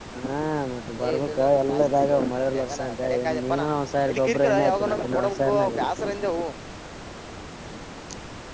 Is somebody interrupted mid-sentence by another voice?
Yes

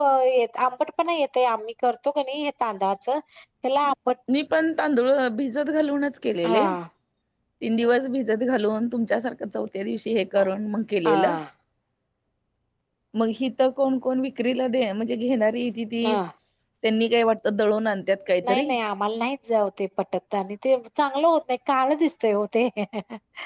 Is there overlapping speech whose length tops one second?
No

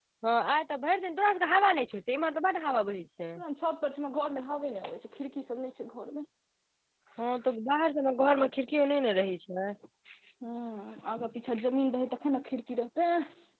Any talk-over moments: No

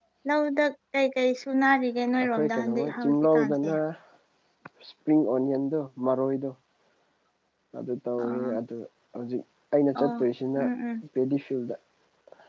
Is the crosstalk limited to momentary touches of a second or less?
No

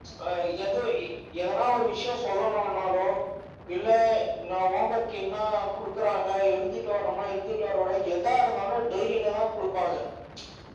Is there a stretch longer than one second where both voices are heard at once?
No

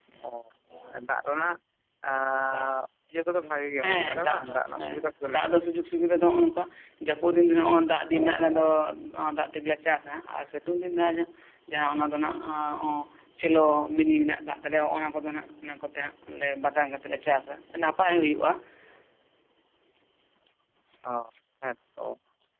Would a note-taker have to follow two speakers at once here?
Yes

